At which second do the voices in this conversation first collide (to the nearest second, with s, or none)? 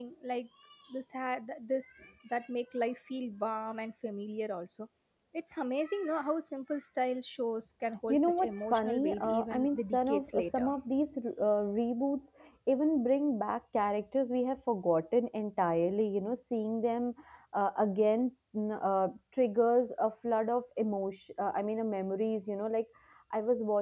8 s